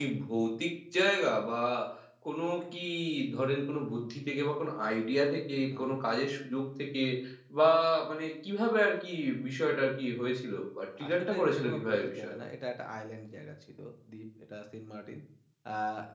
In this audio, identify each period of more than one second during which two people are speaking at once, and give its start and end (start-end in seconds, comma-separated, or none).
11.1-12.4